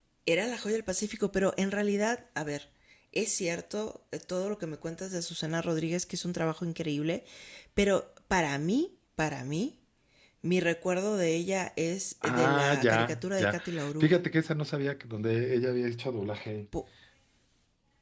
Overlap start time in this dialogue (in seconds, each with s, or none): 12.2 s